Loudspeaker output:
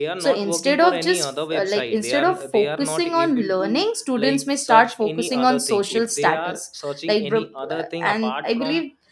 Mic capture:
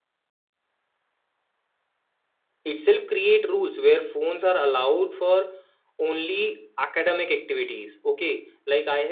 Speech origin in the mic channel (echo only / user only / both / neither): user only